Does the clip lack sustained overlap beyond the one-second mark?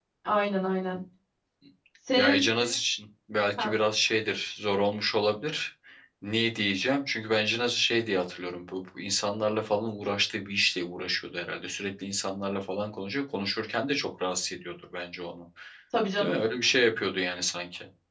Yes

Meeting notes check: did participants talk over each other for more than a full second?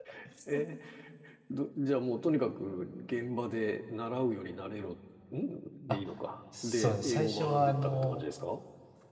Yes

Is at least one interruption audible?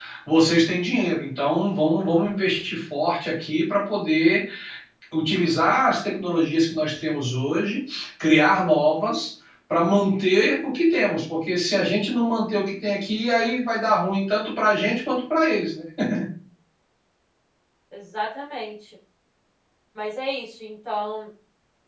No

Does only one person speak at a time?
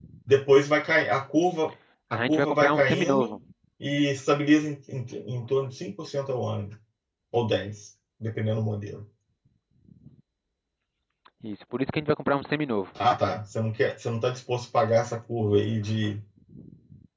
No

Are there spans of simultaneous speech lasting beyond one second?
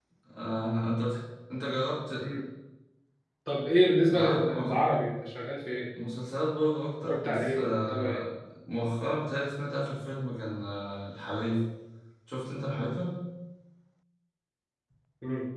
Yes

